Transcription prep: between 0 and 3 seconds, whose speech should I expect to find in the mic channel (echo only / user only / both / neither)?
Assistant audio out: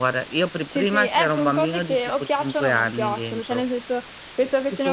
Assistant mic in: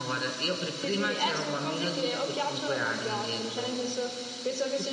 echo only